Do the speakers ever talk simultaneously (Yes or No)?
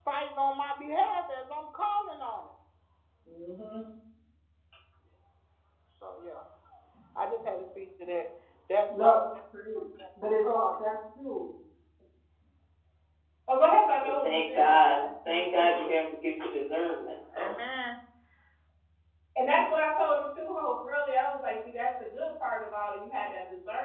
Yes